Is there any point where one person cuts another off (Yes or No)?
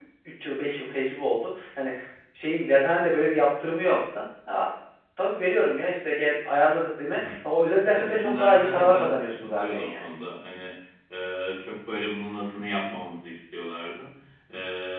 Yes